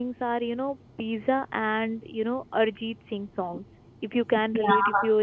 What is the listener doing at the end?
listening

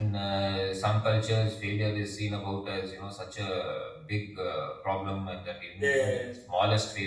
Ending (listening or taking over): listening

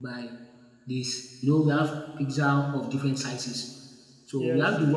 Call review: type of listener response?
listening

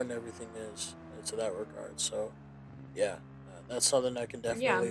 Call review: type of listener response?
taking over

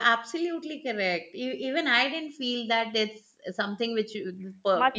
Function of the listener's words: taking over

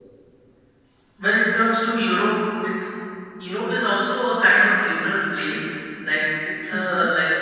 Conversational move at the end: listening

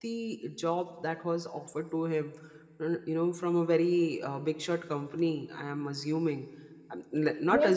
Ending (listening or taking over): taking over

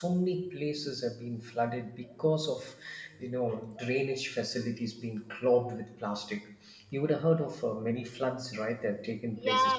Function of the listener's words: taking over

